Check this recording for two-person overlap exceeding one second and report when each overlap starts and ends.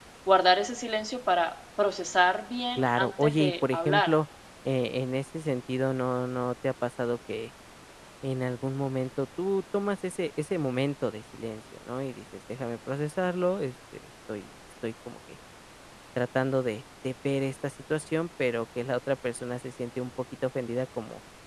2.8-4.1

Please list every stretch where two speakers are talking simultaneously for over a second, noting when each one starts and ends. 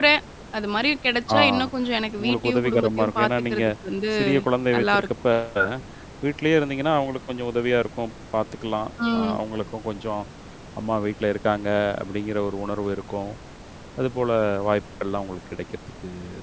2.2-3.6

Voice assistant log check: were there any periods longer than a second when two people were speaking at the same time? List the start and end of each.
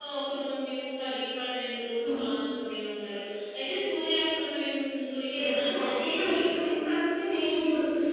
5.3-6.5

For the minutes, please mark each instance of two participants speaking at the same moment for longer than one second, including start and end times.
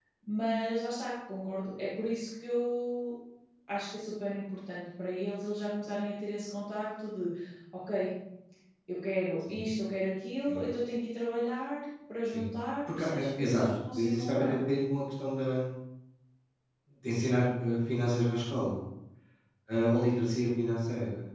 12.9-14.6

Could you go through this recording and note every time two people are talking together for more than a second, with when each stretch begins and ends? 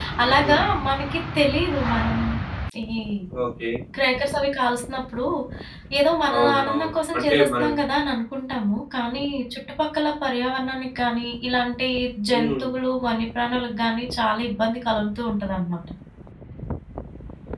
6.4-7.7

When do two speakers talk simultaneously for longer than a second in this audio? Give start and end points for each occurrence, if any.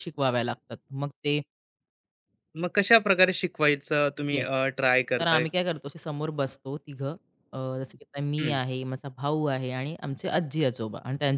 none

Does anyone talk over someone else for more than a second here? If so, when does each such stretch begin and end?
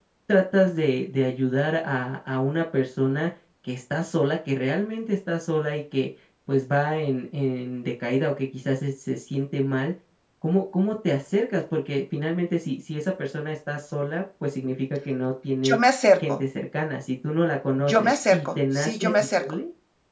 17.8-19.4

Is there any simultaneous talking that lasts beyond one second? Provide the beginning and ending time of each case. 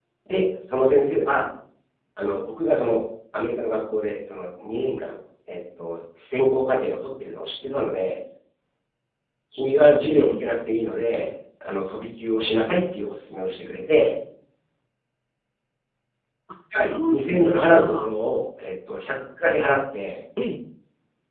16.8-18.1

